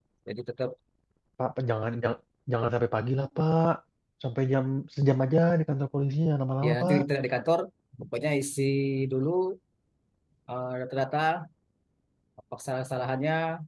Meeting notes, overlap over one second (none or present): none